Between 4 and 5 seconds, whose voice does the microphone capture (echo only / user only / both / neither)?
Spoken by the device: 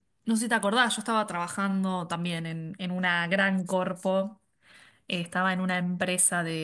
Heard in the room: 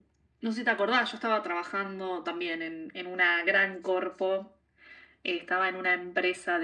echo only